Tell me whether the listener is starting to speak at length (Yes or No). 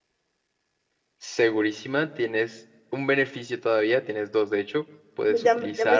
Yes